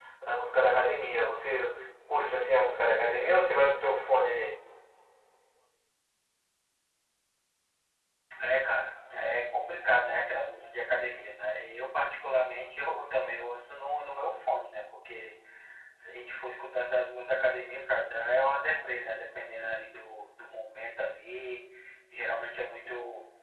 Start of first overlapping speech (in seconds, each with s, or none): none